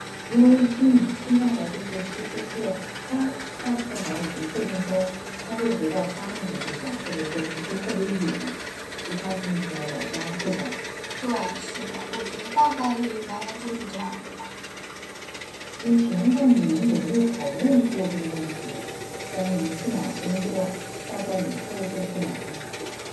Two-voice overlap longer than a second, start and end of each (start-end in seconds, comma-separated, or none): none